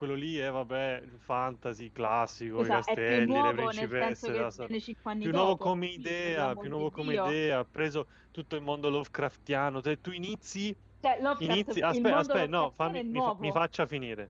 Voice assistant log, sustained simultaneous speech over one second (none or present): present